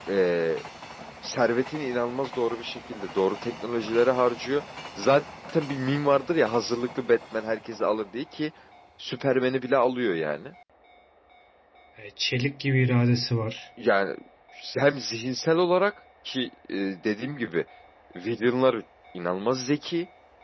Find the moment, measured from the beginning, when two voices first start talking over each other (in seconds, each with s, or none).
none